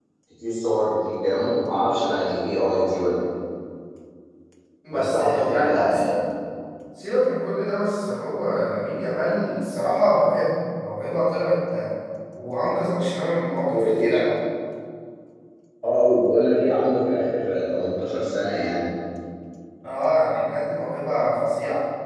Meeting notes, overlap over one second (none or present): present